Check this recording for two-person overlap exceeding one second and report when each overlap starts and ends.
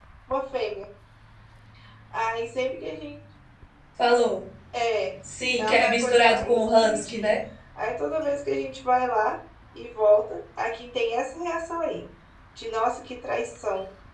5.6-7.3

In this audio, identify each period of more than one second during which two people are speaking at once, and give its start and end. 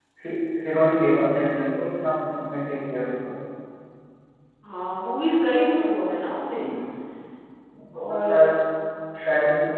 none

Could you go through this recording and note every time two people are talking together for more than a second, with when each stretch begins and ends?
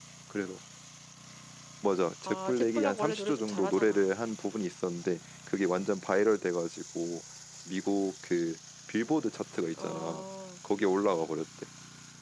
2.2-4.1

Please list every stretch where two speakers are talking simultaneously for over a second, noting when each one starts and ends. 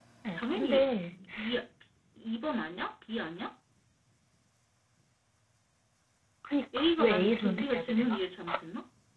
6.8-8.2

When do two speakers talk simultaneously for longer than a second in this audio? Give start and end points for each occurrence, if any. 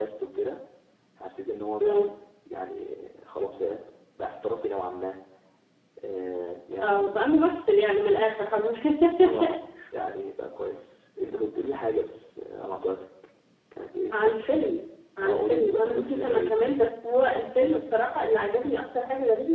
15.2-16.8

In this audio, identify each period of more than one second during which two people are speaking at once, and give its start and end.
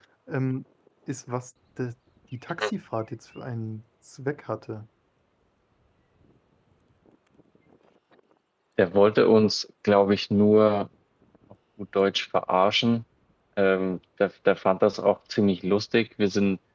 none

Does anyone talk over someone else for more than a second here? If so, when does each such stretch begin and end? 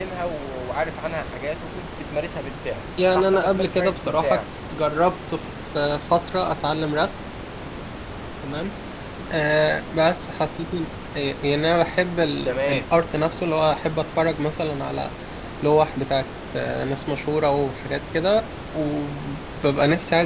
3.1-4.4

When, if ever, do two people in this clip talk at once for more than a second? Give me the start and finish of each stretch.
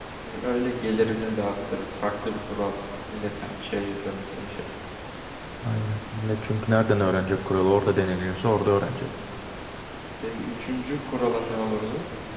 none

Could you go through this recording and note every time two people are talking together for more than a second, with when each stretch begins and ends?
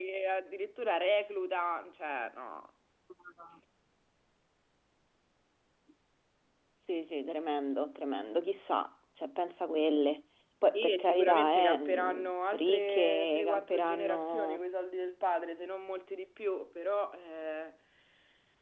10.8-14.6

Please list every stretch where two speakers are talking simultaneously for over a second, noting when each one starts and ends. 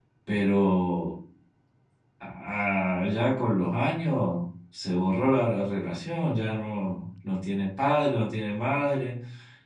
none

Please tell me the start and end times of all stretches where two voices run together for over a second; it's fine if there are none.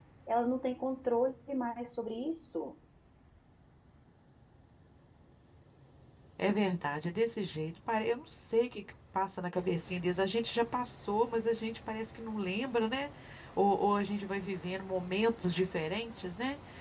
none

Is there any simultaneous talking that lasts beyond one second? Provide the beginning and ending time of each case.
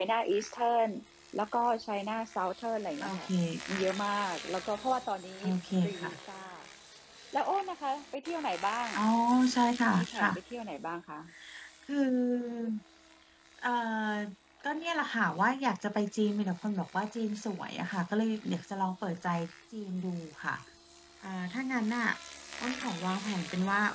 none

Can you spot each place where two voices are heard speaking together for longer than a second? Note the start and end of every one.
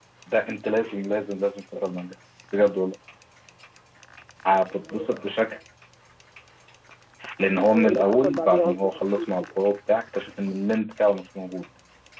7.5-9.6

